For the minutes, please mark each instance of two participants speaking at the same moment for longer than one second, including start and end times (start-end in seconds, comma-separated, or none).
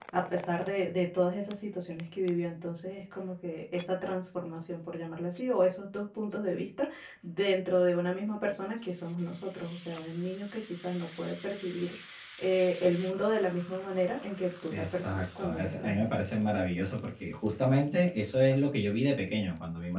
14.7-16.1